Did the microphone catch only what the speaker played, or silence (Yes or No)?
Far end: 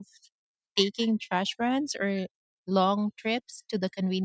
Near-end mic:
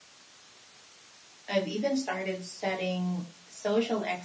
No